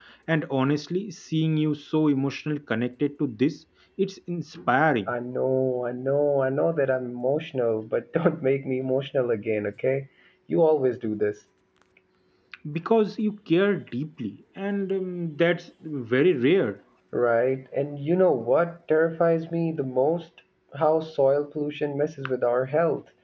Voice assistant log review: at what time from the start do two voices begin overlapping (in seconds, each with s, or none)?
none